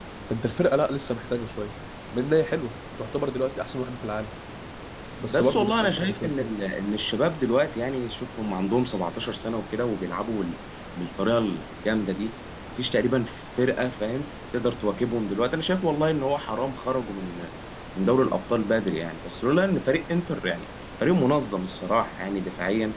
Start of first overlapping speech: 5.3 s

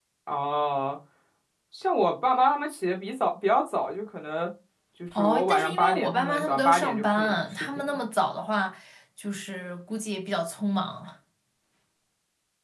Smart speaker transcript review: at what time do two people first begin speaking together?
5.2 s

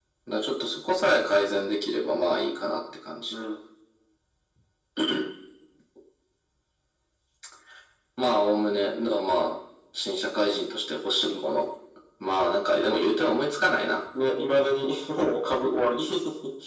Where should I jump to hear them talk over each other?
none

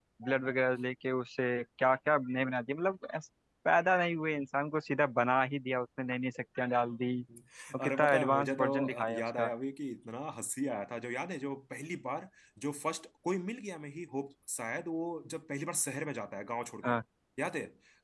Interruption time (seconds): 7.8 s

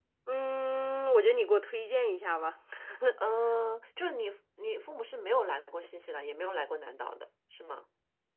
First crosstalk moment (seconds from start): none

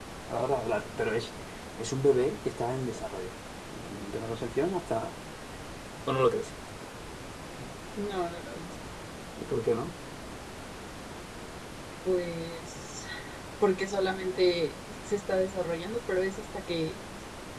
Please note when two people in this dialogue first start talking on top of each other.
none

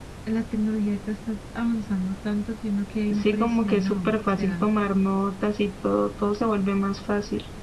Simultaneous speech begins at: 3.1 s

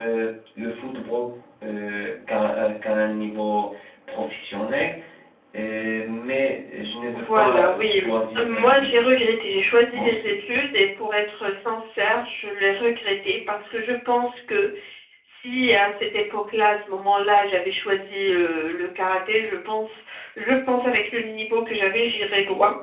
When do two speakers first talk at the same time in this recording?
7.1 s

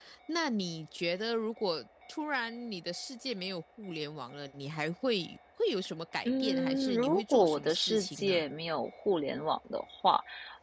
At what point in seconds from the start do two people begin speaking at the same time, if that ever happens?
6.2 s

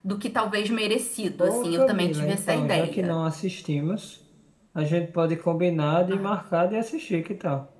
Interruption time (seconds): 1.4 s

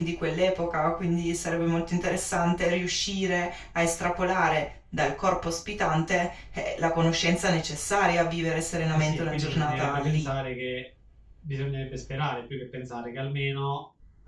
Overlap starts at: 8.9 s

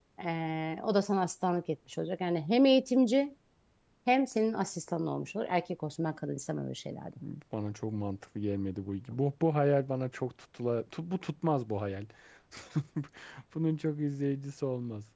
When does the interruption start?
none

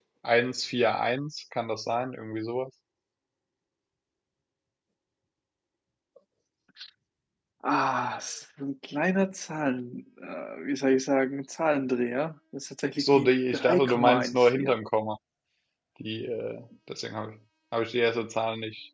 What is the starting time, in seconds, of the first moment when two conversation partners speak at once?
13.0 s

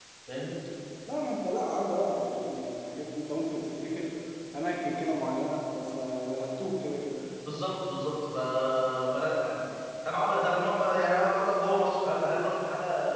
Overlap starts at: none

